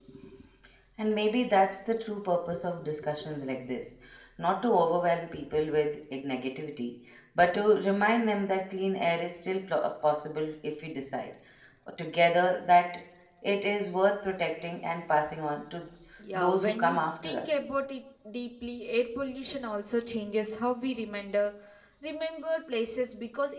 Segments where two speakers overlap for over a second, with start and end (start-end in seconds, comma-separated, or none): 16.3-17.6